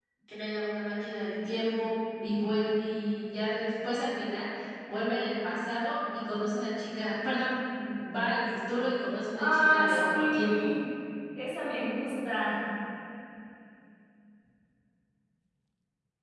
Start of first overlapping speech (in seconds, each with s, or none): 9.3 s